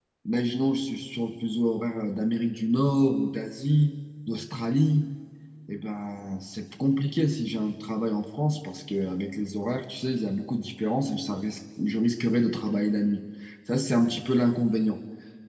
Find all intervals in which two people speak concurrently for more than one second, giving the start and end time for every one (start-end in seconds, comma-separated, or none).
none